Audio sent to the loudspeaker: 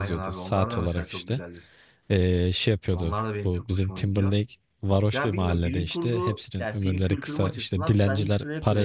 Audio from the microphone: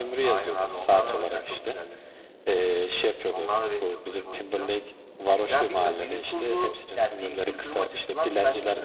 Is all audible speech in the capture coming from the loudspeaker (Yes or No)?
Yes